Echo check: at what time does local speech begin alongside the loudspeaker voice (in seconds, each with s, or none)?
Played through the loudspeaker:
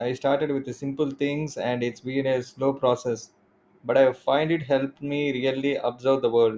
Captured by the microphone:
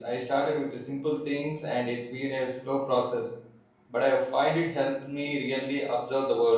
none